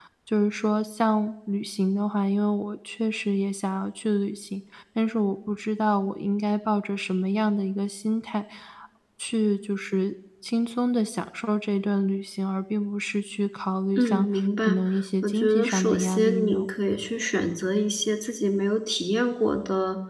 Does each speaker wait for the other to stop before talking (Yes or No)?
No